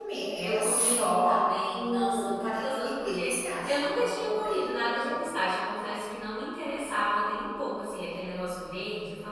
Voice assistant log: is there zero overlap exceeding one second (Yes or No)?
No